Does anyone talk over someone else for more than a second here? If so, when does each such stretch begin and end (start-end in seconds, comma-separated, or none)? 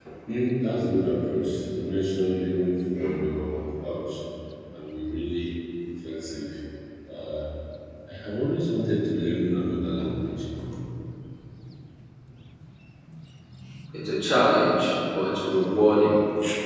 none